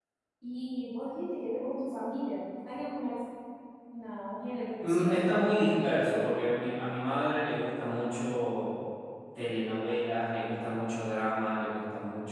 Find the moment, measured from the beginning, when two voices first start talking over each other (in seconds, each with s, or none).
4.8 s